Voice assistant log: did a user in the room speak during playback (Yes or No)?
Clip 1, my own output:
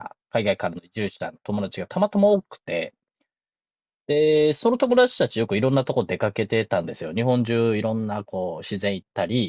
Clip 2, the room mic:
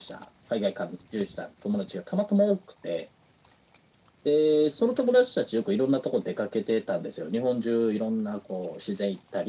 No